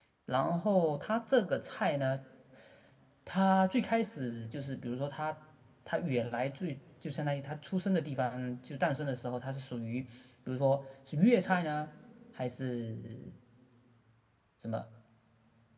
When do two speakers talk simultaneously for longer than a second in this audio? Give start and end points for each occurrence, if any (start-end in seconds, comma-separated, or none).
none